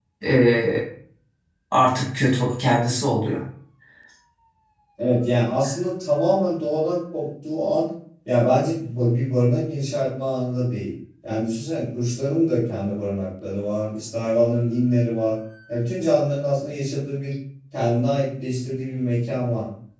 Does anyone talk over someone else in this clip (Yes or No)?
No